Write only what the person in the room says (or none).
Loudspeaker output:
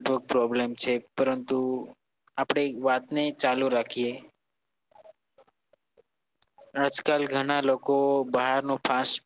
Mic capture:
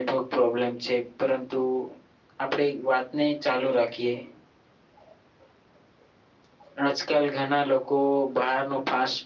none